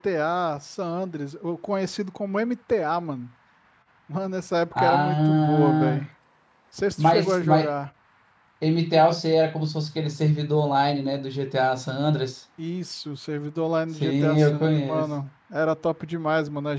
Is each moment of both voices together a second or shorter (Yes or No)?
No